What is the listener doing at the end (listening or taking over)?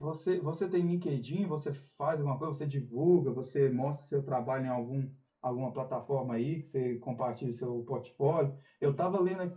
listening